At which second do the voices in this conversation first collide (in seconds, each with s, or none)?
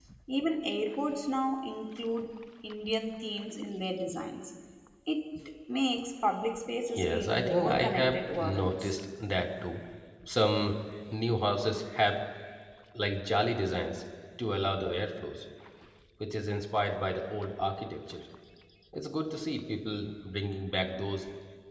6.9 s